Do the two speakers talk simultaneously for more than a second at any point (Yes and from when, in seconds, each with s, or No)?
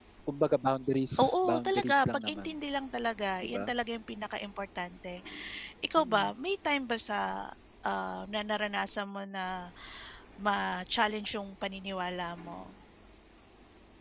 Yes, from 1.2 s